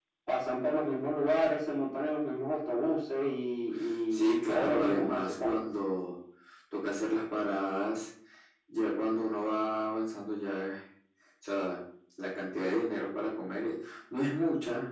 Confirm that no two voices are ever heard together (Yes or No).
No